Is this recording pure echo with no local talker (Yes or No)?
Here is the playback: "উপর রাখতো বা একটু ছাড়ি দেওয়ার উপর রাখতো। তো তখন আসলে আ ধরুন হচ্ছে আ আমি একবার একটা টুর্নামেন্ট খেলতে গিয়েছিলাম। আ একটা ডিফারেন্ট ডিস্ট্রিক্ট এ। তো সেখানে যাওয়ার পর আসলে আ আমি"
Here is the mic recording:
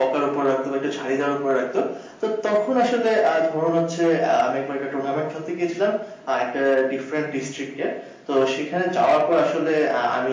Yes